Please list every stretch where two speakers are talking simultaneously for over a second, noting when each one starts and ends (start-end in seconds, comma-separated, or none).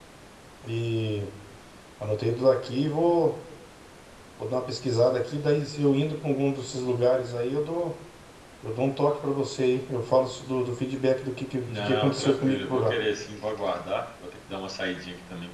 11.6-12.9